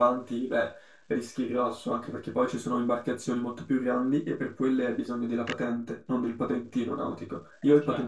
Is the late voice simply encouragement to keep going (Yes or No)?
Yes